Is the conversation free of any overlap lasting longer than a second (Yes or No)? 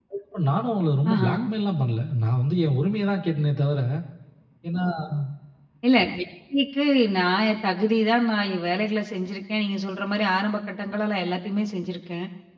Yes